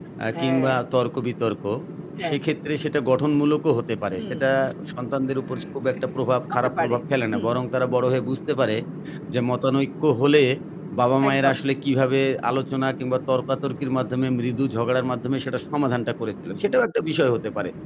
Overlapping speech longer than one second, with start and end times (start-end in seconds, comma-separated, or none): none